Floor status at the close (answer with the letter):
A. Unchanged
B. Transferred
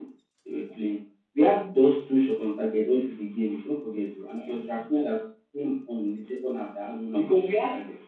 B